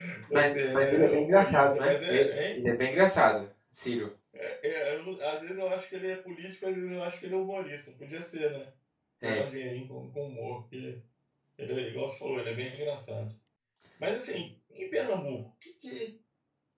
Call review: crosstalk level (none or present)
present